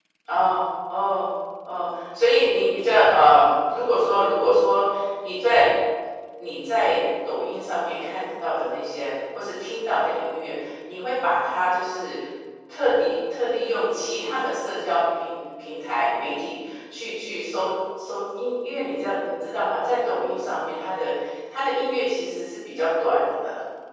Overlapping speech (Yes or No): No